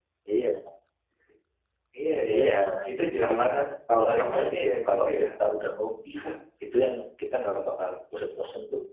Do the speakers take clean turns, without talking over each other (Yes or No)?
No